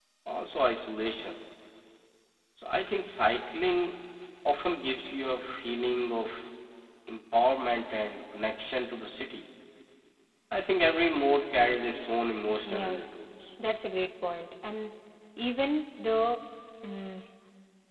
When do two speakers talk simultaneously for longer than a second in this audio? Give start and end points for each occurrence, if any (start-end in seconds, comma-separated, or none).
none